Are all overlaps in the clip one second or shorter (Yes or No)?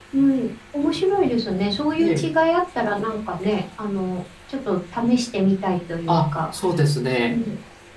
Yes